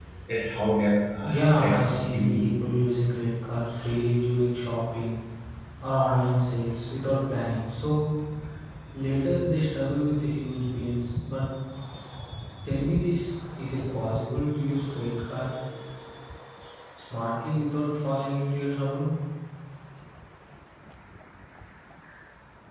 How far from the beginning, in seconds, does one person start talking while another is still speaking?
1 s

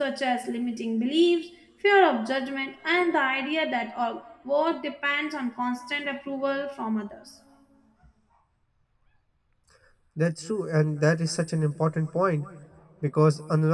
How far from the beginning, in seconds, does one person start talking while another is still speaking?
none

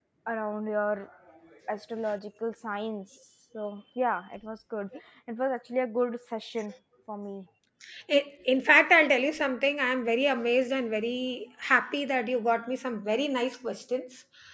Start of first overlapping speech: none

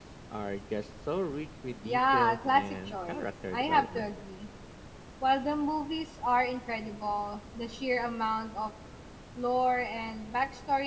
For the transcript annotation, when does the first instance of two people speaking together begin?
2 s

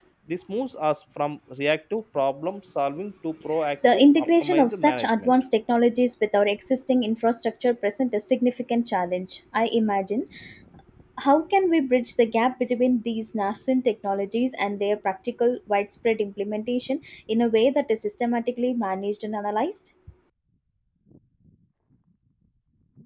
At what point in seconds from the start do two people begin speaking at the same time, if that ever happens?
4 s

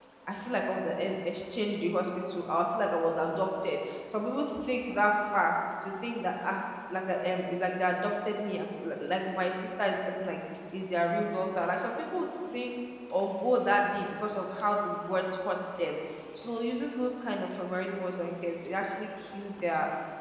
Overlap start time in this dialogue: none

